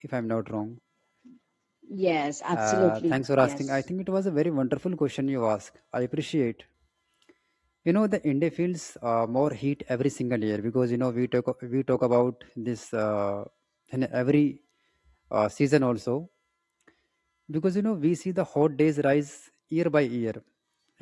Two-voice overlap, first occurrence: 2.5 s

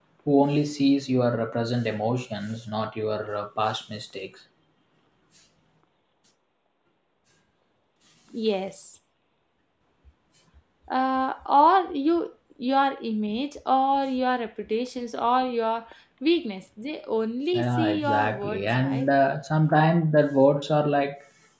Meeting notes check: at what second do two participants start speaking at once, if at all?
17.5 s

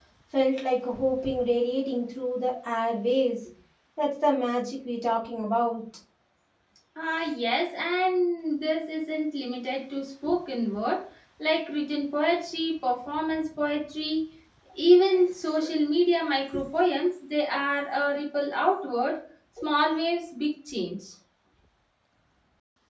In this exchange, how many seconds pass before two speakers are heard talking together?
none

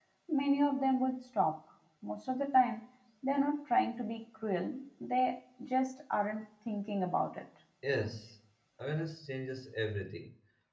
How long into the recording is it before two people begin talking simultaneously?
none

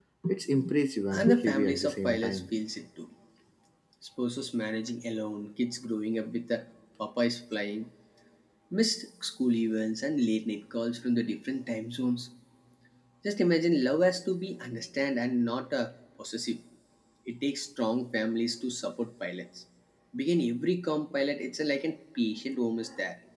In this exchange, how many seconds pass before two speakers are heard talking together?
1.1 s

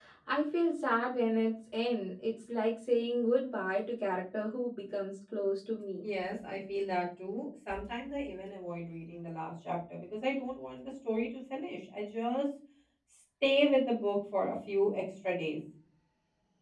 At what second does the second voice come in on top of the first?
none

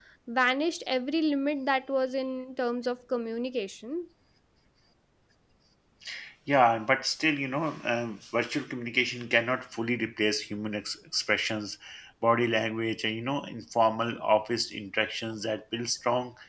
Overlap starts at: none

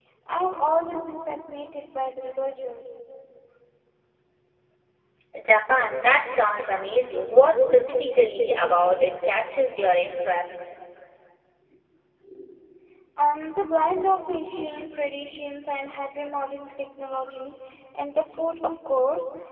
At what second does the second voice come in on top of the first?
none

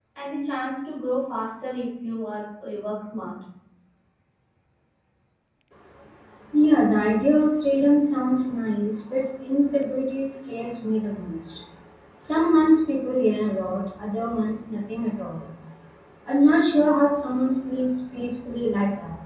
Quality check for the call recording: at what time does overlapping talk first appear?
none

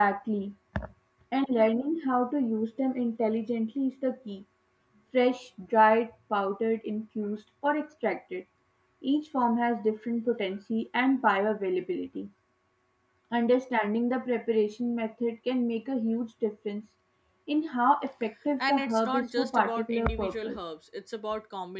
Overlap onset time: 18.6 s

